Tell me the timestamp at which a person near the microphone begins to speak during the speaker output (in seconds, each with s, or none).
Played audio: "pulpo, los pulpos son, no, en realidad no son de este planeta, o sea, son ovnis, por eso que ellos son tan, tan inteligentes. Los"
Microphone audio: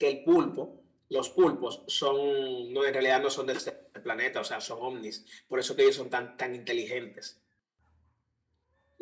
none